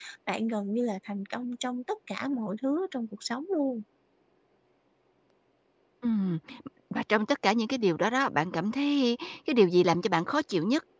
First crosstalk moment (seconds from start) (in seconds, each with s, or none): none